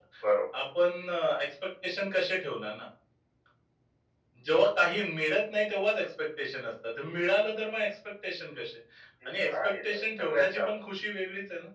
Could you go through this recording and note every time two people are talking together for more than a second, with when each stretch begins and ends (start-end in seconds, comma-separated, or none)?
9.2-10.7